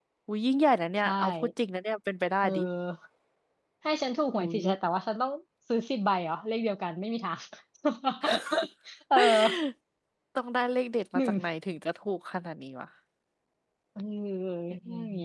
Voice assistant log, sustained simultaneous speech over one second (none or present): none